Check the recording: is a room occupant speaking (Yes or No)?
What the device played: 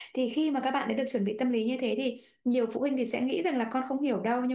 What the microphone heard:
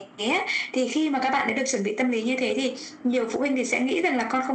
No